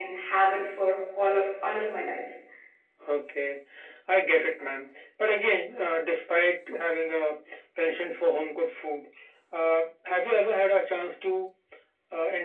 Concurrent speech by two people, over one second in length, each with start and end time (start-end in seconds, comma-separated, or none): none